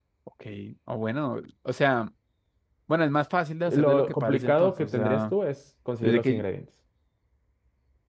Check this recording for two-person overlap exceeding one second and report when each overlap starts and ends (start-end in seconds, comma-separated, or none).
3.7-5.3